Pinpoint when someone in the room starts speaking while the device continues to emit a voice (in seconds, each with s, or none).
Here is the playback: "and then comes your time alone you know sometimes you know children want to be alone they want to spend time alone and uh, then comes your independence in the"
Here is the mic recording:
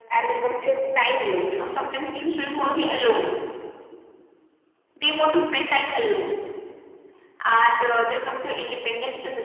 none